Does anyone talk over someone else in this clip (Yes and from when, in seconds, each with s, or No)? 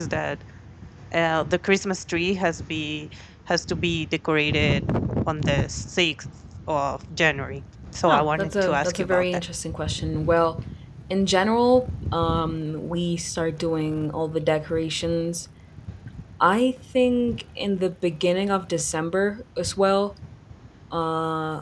Yes, from 8.1 s